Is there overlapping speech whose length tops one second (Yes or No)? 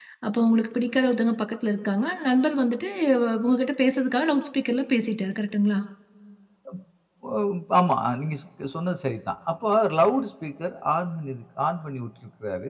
No